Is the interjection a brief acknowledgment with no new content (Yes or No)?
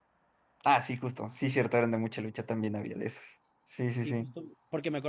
No